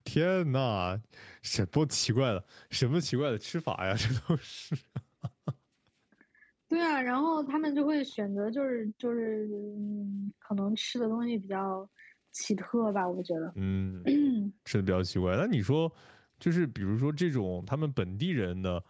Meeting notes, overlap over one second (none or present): none